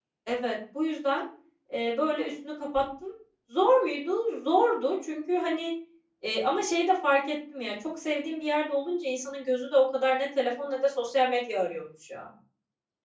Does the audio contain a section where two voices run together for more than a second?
No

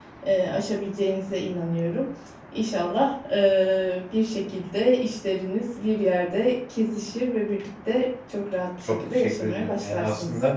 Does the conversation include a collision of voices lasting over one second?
Yes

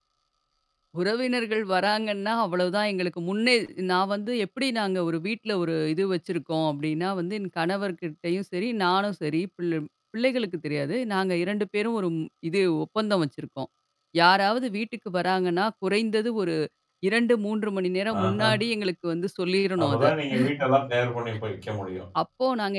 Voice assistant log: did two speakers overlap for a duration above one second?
No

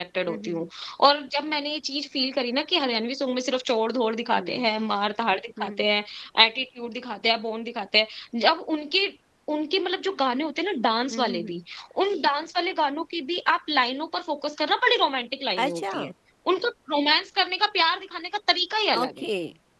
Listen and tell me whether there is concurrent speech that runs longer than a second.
No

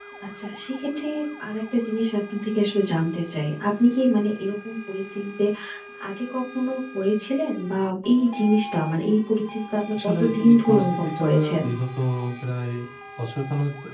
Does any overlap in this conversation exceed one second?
Yes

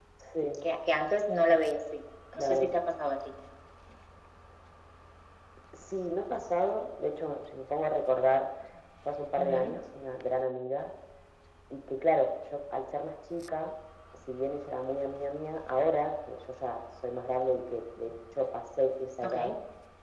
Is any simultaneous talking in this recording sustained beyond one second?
No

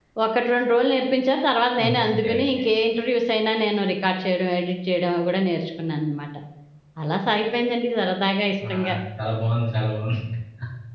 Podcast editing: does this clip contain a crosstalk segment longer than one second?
No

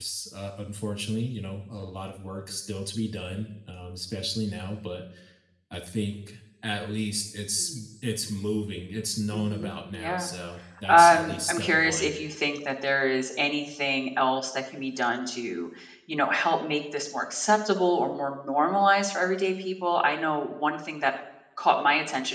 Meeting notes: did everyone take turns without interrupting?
No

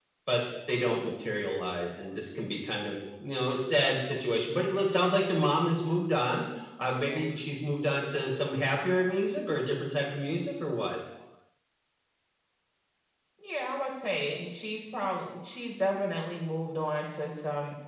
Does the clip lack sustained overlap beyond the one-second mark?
Yes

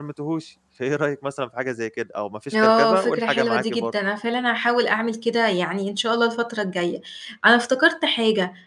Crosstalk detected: Yes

